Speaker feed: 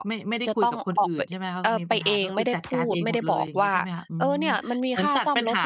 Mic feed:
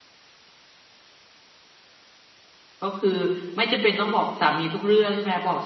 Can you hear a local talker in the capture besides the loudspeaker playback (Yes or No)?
Yes